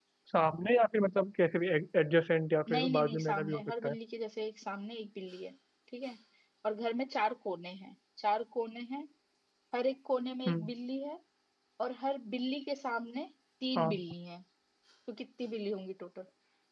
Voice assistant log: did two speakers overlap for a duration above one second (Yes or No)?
Yes